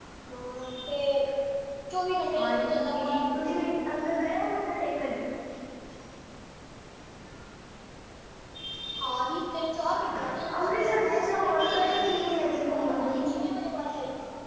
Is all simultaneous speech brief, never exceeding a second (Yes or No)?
No